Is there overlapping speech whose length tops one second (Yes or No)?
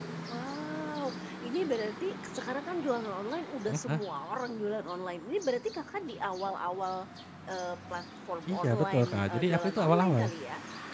Yes